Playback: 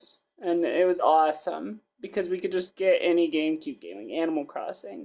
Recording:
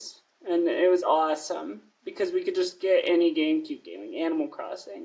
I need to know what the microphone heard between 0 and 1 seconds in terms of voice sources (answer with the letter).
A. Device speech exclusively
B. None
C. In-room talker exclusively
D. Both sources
A